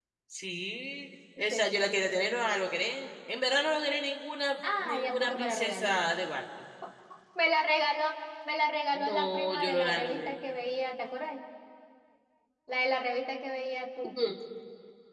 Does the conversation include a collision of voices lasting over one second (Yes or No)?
Yes